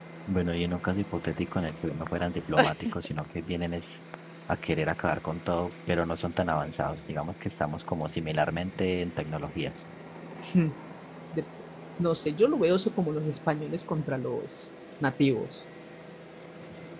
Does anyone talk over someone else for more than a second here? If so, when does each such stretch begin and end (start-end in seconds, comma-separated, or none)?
none